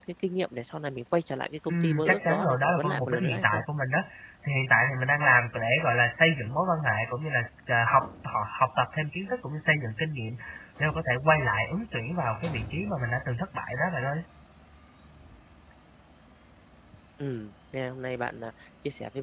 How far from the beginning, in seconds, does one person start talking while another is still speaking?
1.7 s

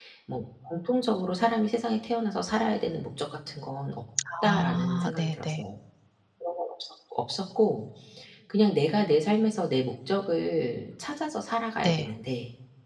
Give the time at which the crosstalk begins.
4.4 s

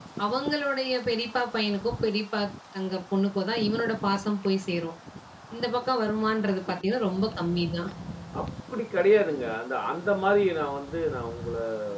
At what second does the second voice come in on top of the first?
none

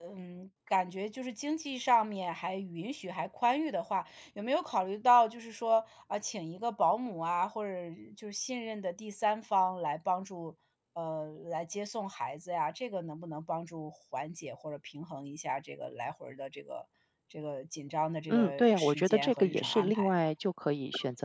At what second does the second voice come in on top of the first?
18.3 s

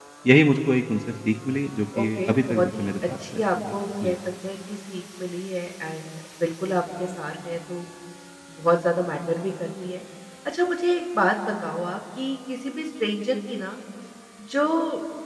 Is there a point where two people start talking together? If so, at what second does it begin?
1.9 s

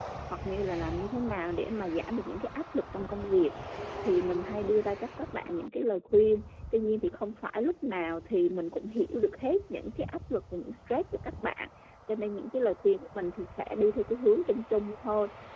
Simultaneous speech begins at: none

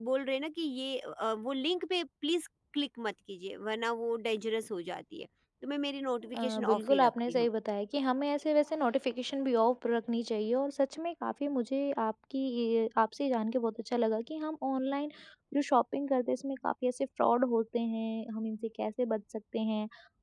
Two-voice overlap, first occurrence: 6.2 s

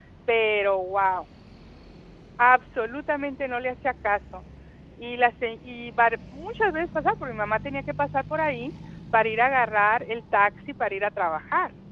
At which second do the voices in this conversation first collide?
none

